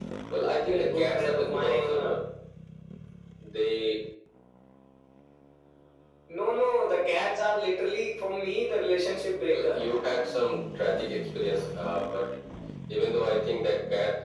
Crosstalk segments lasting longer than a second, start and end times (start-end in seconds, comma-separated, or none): 0.6-2.1